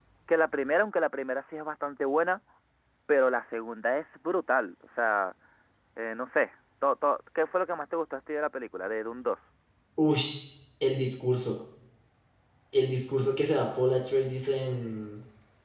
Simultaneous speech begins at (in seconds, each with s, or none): none